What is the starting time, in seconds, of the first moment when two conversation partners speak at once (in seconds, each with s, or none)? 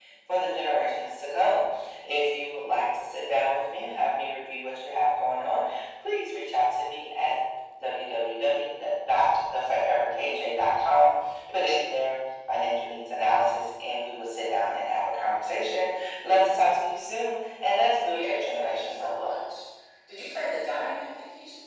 17.8 s